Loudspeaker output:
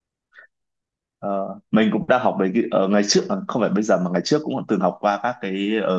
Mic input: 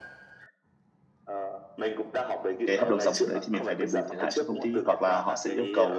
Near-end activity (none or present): present